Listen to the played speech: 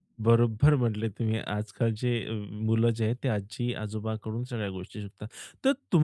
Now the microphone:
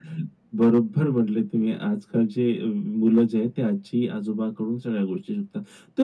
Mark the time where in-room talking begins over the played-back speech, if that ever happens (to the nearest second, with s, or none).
none